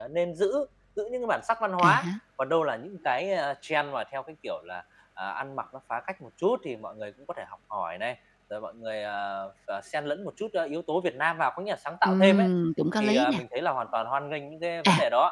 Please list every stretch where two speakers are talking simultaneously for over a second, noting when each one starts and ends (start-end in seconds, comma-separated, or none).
none